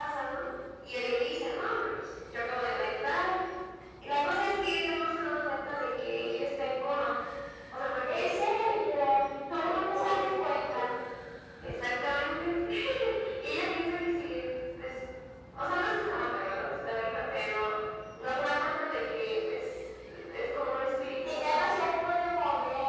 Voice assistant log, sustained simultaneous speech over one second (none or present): present